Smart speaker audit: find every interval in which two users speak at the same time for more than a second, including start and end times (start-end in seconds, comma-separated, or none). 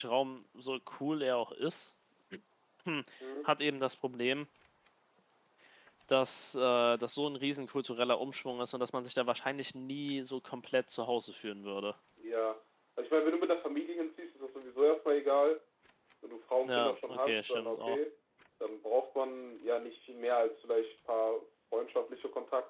16.6-18.0